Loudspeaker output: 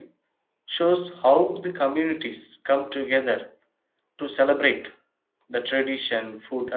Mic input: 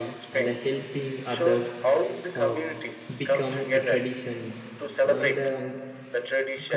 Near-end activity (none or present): present